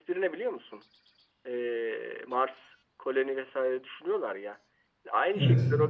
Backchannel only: Yes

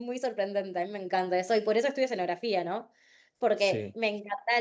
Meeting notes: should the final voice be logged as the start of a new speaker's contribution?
No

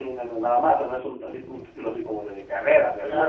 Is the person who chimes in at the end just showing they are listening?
No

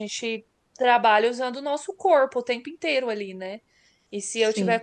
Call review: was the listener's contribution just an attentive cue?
Yes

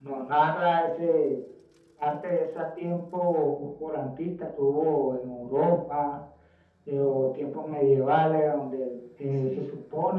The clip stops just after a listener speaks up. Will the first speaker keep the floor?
Yes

